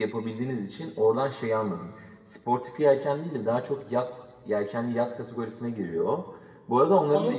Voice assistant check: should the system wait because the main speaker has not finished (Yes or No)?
Yes